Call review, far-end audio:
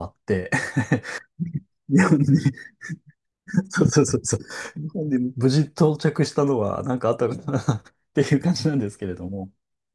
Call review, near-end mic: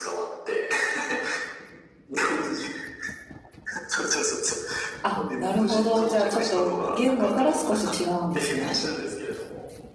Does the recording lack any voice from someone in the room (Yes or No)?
No